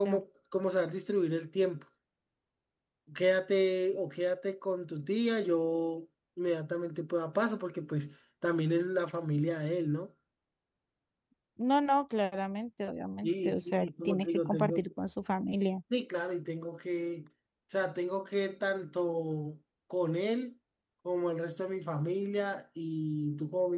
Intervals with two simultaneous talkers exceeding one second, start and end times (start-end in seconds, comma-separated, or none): 13.2-14.8